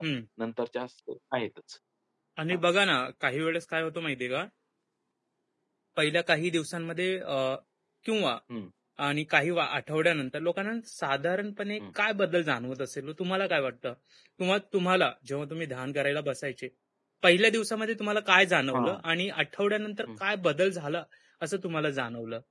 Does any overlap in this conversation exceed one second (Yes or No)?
No